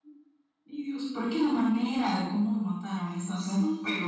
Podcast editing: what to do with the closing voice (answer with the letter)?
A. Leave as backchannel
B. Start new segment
B